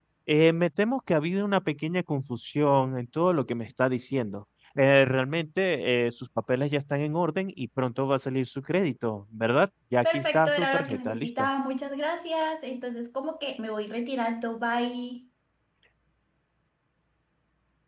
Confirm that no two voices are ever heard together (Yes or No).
No